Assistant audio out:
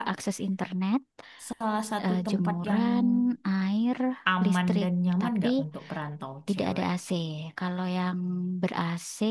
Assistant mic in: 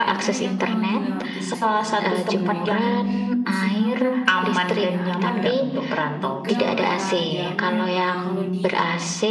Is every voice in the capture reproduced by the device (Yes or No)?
No